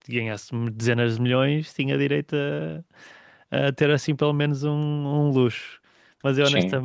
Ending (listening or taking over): listening